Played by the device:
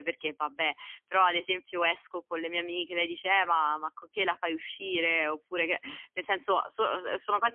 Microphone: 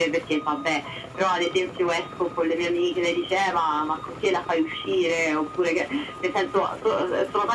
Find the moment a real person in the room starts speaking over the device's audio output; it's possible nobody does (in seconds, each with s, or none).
none